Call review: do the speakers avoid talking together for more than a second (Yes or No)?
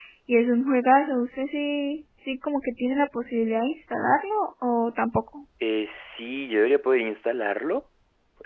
Yes